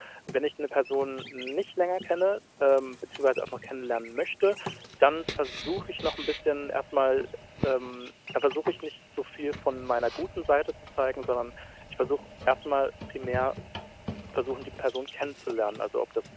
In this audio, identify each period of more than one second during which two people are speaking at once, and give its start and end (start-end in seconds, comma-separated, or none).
none